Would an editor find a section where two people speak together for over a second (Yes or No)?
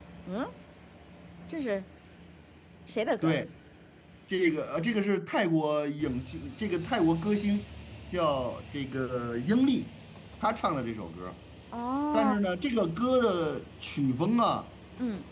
No